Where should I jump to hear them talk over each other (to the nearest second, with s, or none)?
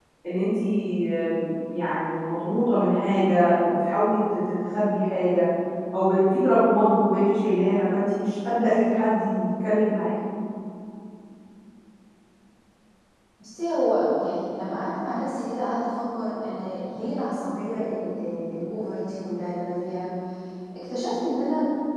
none